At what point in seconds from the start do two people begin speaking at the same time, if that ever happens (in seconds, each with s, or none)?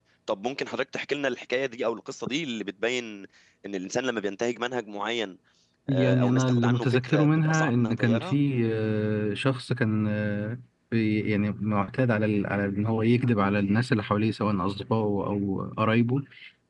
5.9 s